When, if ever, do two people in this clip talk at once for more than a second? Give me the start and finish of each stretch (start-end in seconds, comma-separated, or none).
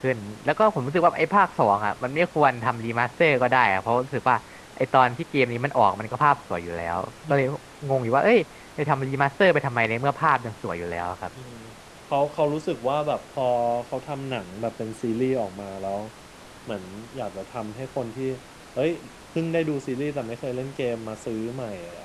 none